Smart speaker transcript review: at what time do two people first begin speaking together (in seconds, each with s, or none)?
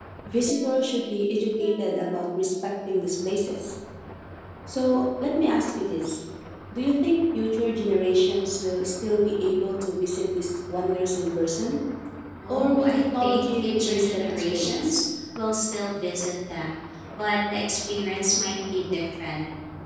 12.5 s